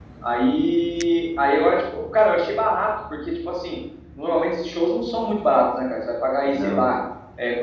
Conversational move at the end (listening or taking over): listening